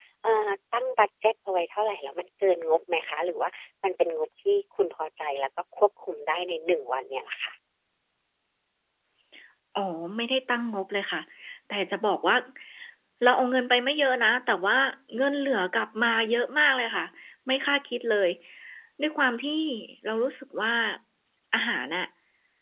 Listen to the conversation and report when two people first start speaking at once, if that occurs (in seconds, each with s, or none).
none